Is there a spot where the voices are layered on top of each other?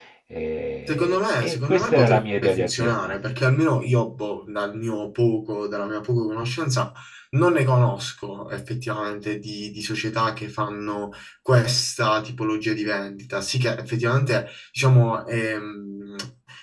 Yes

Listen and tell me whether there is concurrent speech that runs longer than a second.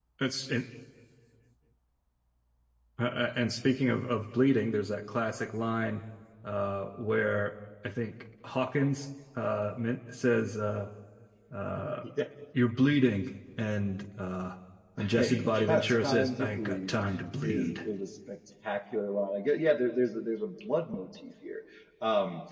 Yes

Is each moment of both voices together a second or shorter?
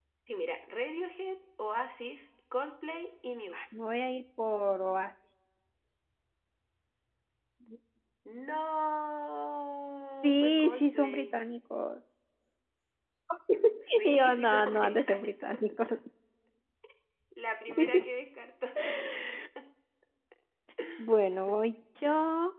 No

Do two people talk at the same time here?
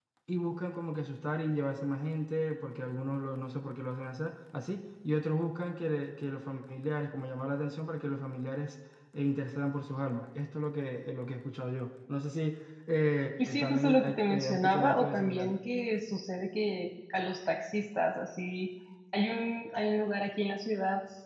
Yes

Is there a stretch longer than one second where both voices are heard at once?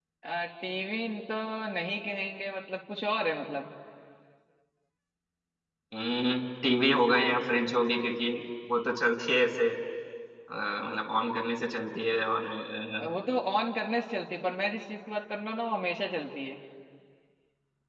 No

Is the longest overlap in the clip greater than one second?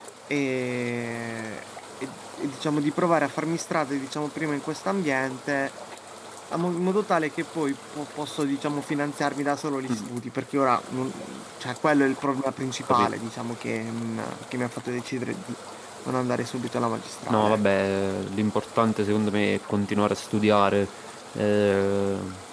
No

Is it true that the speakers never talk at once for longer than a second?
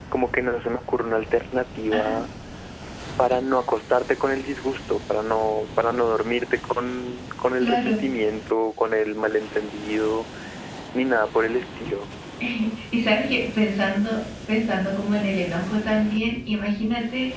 Yes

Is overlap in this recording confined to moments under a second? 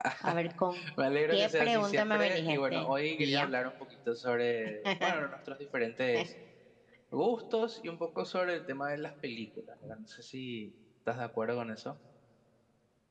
No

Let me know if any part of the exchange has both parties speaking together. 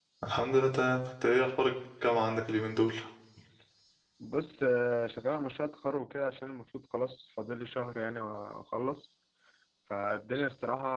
No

